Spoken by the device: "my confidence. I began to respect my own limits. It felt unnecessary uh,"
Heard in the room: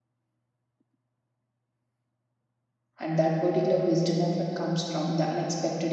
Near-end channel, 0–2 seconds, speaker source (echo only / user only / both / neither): neither